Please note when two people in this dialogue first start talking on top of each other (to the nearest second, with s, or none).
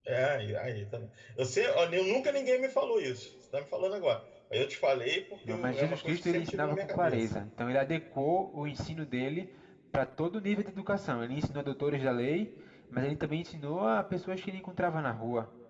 5 s